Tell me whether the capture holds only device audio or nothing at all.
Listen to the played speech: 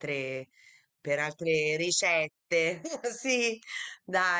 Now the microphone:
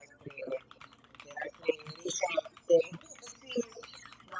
Yes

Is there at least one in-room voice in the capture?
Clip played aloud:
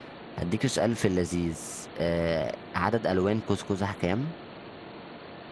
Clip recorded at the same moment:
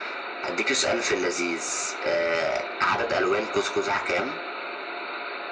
No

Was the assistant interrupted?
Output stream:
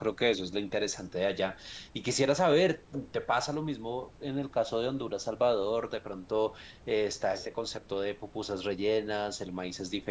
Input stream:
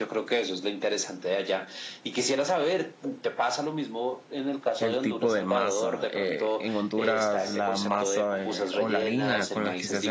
Yes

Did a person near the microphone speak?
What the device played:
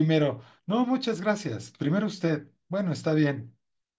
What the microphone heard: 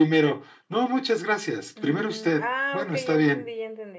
Yes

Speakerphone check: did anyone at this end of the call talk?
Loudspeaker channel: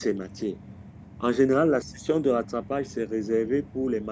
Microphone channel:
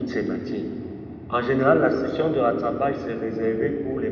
No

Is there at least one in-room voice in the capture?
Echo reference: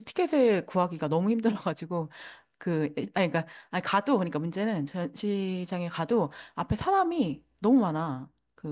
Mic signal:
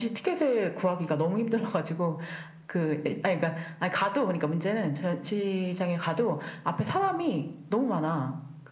No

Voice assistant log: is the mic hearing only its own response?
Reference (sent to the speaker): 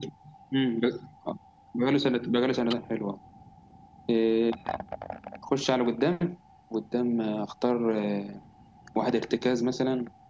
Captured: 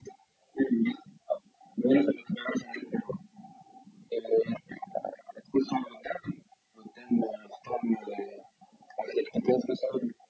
Yes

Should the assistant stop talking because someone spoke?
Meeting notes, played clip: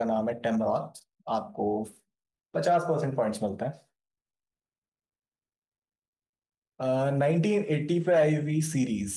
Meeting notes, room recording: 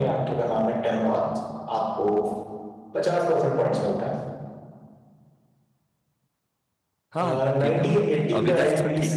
Yes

